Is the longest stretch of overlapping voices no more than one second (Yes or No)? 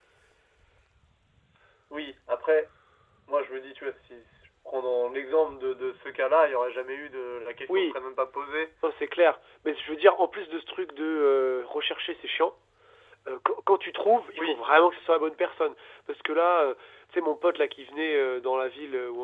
Yes